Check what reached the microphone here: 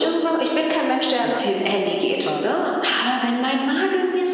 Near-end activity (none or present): present